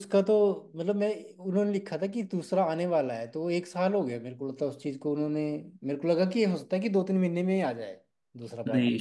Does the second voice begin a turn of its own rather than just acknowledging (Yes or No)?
Yes